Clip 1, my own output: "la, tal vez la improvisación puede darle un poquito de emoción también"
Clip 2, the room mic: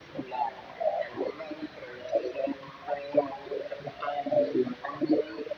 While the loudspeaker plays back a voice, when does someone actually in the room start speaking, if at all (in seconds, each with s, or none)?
none